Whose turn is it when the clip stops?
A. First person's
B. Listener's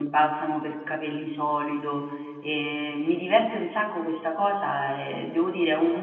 A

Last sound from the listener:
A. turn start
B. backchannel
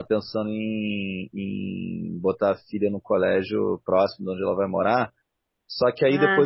B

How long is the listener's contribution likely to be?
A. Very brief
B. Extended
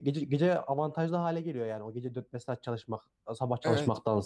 B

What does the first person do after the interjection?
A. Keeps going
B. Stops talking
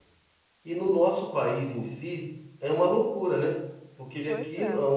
A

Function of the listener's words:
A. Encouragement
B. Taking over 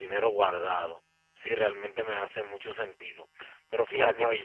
B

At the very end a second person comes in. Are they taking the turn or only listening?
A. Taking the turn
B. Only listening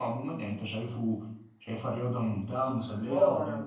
A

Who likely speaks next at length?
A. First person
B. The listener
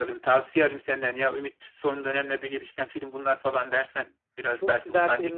B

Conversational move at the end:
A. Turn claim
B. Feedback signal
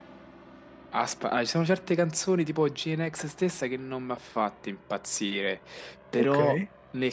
B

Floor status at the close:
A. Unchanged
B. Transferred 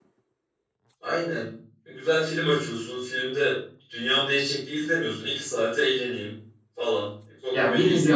B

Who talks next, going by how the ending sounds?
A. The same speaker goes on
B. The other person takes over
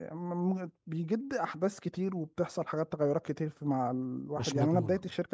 A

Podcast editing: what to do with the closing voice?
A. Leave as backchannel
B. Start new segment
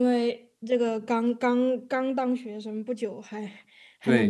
B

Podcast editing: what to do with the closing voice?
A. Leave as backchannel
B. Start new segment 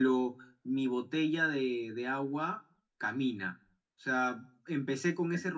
A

